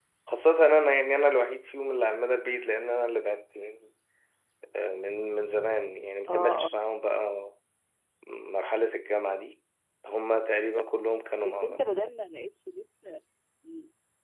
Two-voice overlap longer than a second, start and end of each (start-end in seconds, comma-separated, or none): none